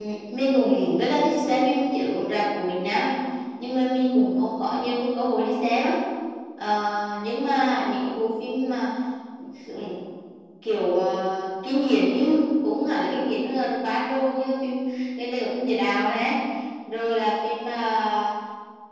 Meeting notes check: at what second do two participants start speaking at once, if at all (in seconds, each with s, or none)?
none